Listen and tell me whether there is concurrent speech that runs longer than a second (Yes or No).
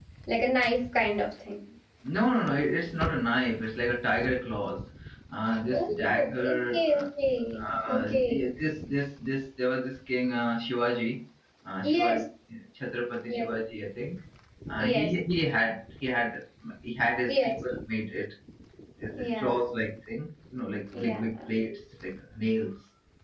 Yes